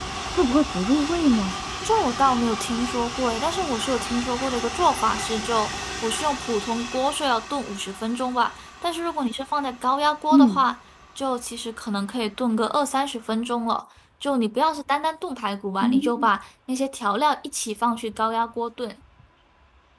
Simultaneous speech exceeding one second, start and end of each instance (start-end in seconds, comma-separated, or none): none